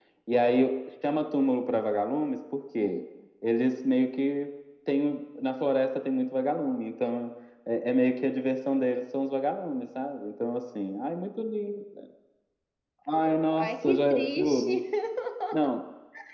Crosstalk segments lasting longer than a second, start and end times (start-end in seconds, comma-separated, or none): 13.1-14.7